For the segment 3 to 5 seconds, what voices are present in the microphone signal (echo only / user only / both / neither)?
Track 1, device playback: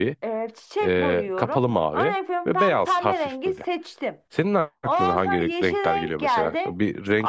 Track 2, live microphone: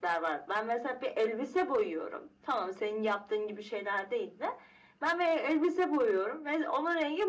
user only